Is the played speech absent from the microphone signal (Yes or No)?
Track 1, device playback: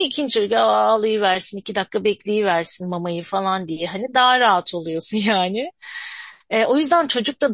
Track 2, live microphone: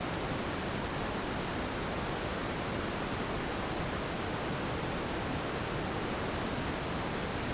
Yes